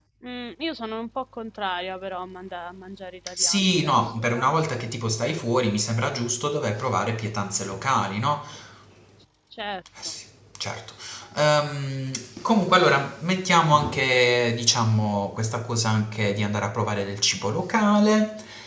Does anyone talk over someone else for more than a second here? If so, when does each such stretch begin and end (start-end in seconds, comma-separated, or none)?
3.4-4.6